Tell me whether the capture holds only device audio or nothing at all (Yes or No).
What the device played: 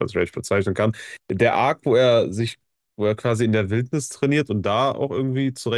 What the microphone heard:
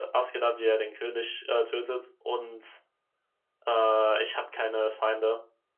No